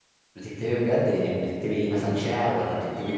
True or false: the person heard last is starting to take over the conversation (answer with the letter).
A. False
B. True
B